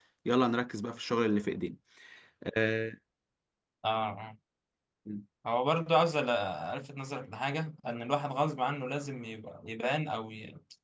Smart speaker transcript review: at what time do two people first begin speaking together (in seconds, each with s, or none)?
none